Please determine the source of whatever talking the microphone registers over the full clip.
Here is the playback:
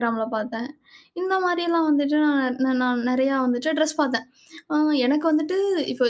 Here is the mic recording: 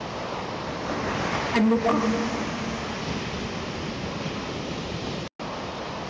user only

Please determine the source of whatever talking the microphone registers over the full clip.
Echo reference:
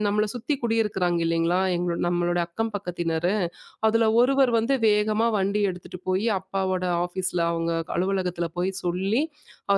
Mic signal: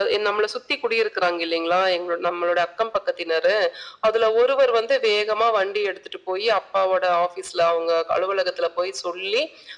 echo only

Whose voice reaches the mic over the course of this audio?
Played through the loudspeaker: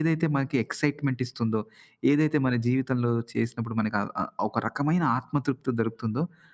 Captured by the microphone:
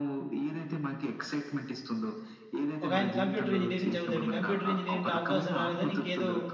both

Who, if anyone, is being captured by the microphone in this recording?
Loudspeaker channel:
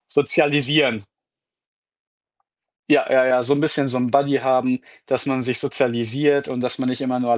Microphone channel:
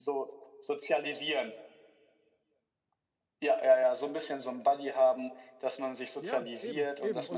both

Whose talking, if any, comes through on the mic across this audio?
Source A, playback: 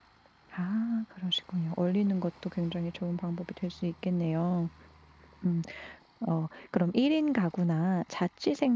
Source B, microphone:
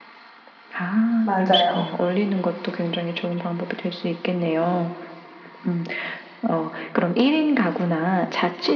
both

